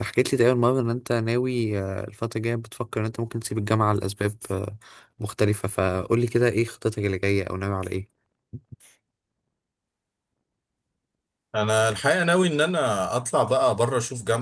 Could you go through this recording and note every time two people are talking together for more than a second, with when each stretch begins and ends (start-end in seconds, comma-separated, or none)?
none